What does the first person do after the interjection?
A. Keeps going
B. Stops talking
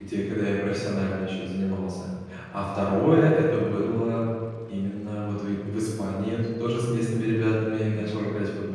A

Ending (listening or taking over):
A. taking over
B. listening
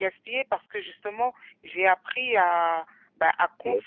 B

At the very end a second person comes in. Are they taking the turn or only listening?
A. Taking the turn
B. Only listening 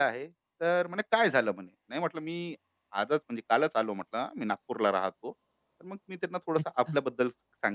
B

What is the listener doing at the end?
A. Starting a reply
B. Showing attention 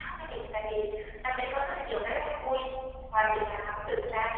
B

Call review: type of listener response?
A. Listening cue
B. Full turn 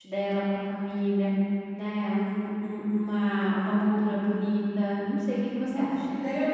B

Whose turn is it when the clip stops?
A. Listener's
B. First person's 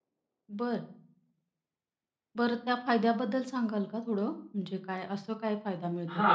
A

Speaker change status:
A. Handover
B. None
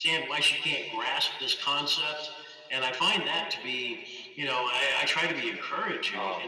A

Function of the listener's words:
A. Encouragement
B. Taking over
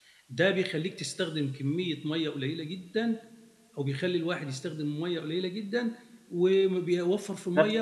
A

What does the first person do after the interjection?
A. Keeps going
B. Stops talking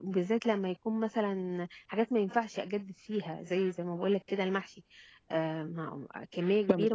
B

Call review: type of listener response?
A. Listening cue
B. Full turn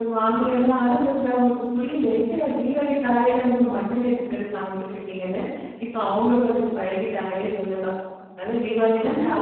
B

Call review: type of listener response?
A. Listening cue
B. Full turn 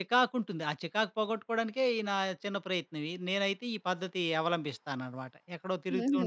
B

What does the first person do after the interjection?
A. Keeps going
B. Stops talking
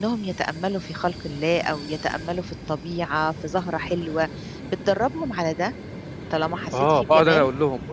B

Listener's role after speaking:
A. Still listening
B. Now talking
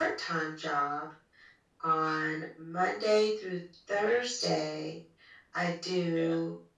A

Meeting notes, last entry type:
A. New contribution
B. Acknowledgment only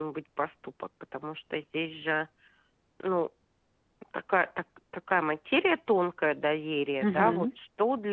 B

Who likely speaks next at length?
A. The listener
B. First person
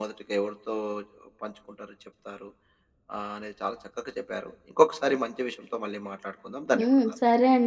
A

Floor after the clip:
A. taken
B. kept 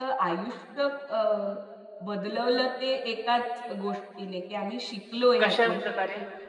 B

